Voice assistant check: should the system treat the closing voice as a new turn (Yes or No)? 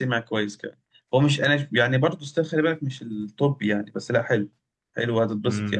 Yes